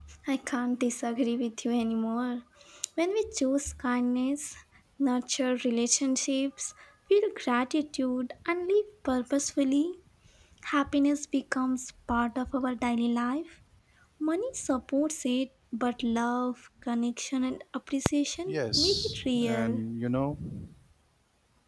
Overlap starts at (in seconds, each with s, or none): 18.5 s